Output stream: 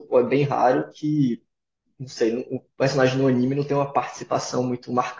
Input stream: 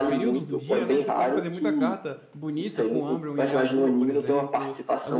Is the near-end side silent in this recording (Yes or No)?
No